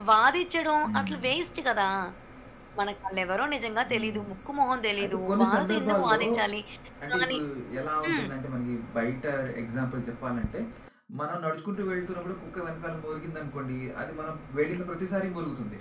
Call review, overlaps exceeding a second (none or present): present